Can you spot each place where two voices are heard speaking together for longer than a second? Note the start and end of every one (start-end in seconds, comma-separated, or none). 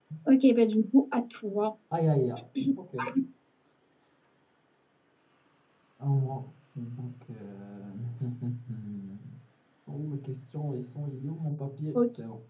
none